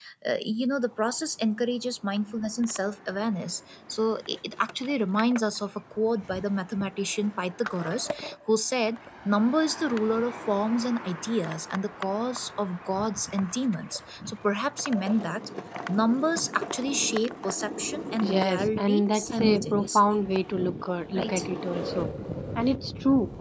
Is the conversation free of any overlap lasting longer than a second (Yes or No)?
No